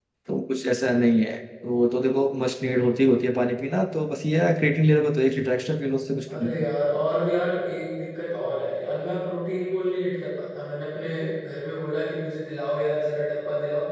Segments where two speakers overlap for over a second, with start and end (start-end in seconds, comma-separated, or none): none